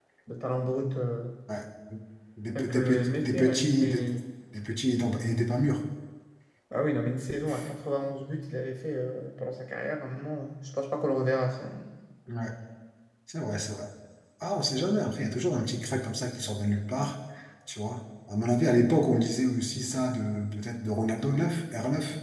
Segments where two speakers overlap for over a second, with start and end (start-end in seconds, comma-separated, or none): 2.6-3.8